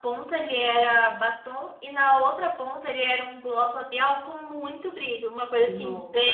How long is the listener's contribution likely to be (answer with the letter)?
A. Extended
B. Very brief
A